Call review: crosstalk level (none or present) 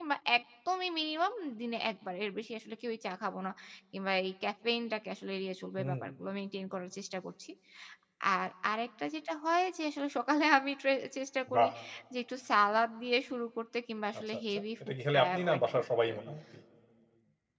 present